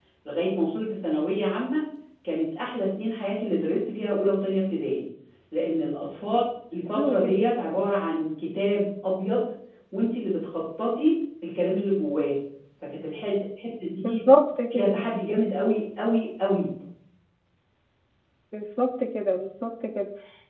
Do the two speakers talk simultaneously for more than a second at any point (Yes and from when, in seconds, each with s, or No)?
No